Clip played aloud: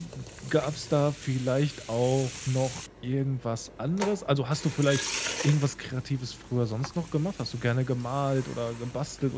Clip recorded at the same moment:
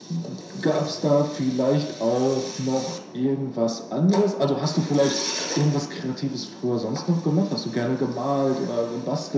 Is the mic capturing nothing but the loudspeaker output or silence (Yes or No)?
Yes